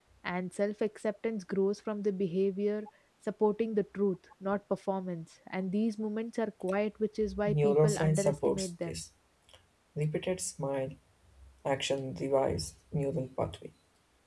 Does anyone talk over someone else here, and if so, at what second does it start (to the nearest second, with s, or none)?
7 s